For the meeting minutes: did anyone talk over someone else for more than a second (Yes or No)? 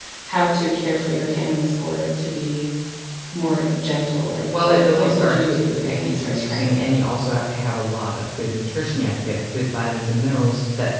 Yes